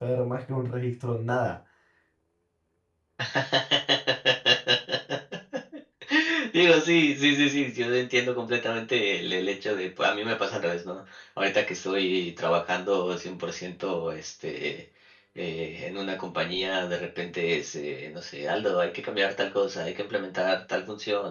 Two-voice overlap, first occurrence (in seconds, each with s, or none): none